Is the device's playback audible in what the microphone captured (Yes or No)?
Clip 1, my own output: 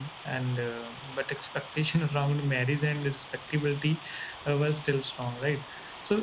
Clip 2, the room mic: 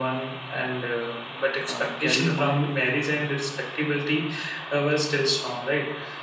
Yes